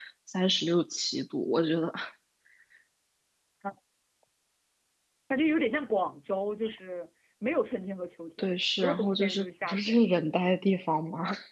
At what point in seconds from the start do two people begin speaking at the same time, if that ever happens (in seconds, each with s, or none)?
8.4 s